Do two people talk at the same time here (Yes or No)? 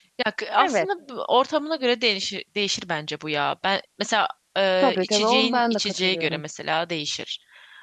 Yes